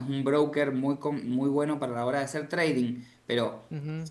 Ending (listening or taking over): listening